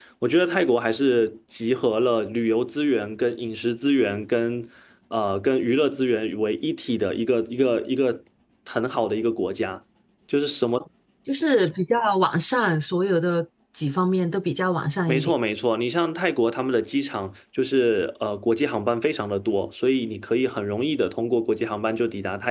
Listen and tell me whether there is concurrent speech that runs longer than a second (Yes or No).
No